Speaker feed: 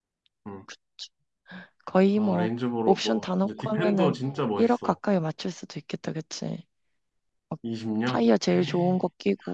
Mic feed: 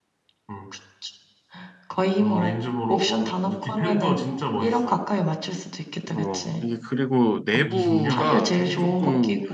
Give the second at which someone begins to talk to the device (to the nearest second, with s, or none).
6 s